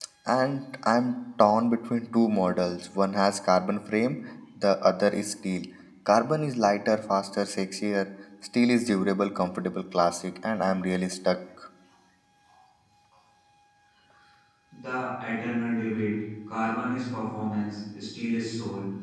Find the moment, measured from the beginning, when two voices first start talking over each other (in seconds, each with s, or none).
none